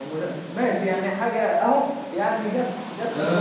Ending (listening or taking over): taking over